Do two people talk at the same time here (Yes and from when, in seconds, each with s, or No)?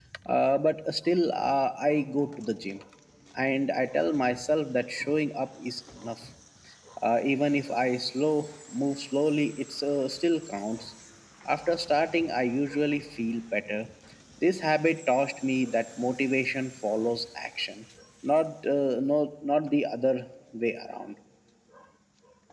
No